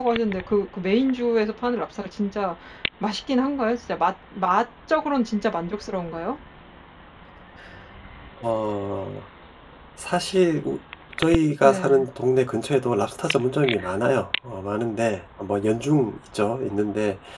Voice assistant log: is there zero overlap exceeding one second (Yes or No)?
Yes